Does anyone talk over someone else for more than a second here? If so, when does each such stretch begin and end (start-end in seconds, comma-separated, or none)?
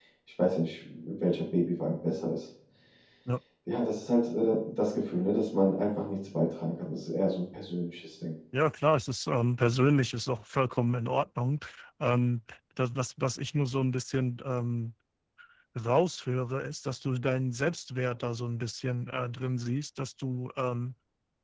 none